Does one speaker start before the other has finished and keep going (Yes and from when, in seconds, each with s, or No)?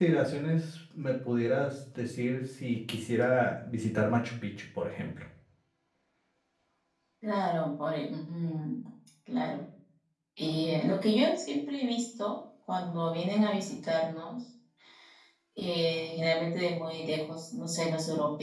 No